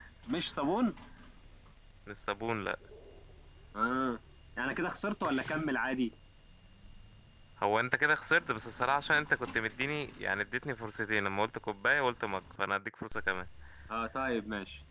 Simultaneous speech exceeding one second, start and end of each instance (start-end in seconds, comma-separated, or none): none